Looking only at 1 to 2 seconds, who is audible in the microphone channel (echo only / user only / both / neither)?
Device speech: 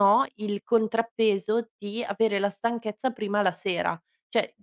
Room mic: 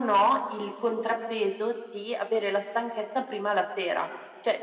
echo only